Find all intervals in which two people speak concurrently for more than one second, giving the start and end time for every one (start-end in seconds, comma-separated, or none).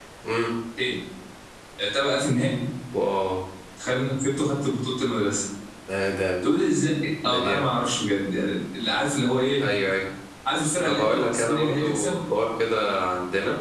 10.8-12.2